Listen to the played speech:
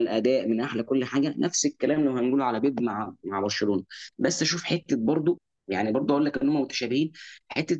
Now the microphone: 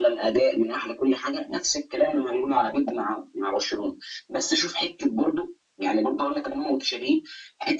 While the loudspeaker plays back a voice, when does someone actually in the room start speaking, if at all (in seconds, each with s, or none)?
none